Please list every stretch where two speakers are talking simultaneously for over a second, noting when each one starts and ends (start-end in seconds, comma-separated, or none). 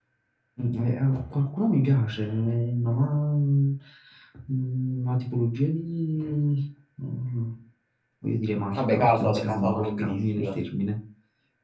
8.8-10.6